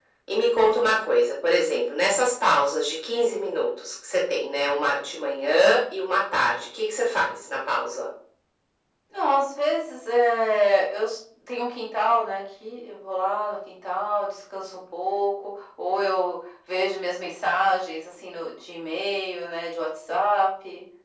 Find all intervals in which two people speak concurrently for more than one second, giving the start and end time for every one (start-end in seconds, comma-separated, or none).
none